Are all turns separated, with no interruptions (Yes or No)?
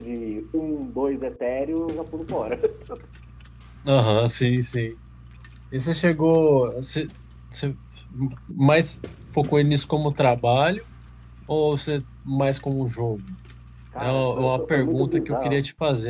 No